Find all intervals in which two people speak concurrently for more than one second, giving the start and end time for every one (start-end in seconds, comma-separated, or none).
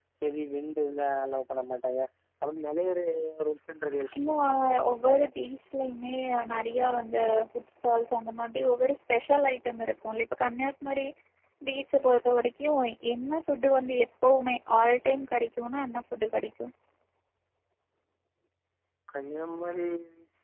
none